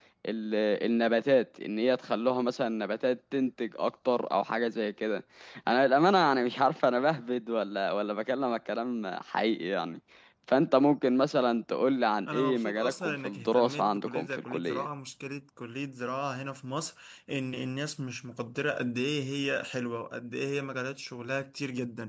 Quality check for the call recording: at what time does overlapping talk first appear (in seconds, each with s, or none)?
12.3 s